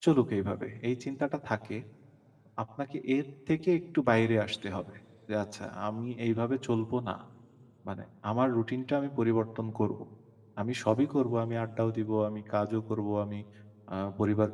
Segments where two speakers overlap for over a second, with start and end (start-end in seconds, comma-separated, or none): none